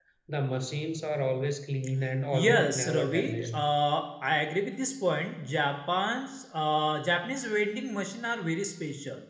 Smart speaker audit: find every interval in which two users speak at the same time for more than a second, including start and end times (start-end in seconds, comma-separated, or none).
2.3-3.6